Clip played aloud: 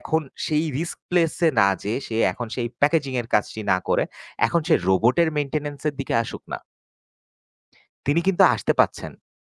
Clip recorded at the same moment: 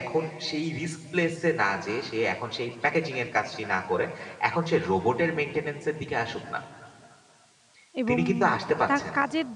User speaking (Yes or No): Yes